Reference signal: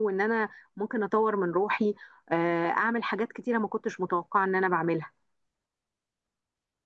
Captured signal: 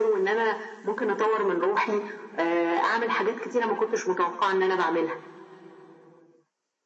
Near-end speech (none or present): none